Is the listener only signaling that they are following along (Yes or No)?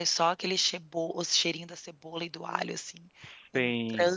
No